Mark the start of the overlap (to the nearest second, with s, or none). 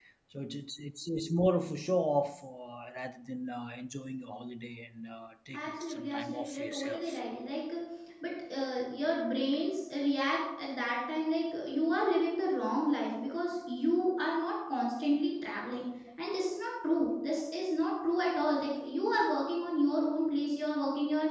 6 s